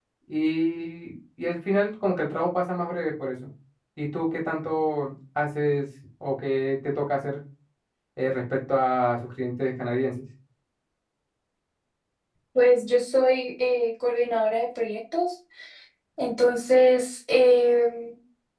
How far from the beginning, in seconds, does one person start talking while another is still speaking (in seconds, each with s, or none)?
none